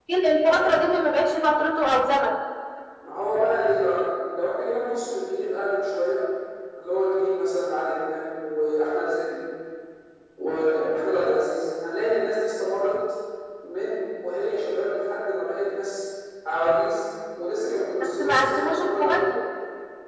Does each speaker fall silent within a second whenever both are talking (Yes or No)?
No